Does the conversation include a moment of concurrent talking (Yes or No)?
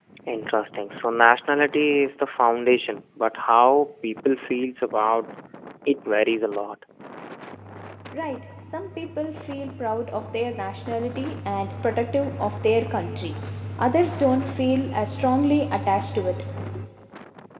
No